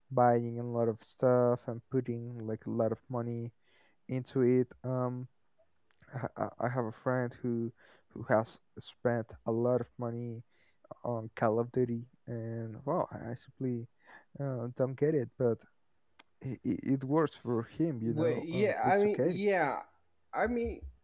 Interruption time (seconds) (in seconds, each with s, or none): 18.0 s